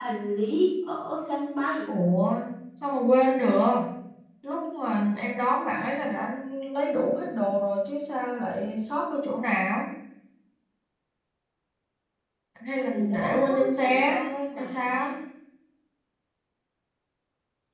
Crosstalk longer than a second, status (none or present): present